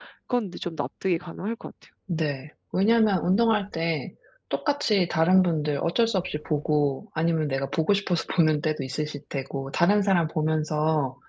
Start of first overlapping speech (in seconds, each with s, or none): none